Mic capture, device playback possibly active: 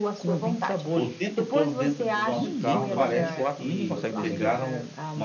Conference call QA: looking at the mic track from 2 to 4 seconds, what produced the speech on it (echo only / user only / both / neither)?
both